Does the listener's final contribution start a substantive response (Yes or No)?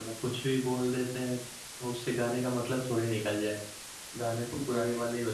No